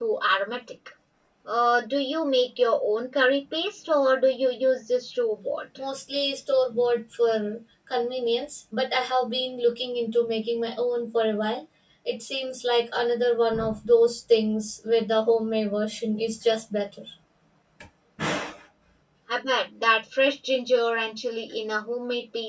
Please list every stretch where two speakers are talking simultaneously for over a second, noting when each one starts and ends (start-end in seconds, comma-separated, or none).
none